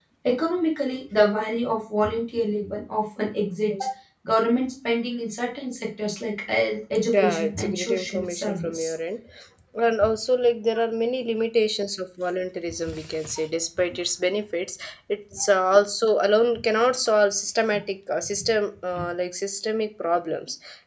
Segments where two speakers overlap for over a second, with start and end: 7.1-8.9

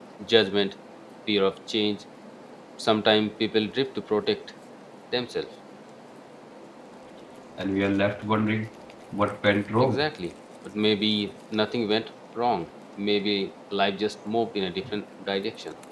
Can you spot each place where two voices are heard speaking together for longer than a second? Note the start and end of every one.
none

